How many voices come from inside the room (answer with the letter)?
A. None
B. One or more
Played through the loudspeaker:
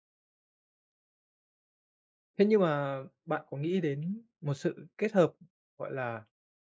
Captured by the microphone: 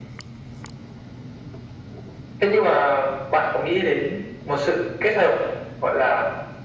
A